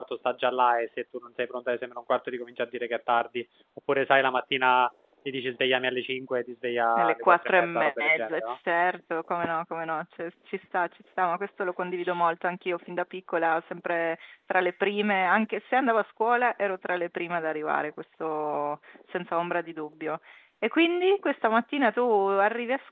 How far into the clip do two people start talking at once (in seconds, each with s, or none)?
7.0 s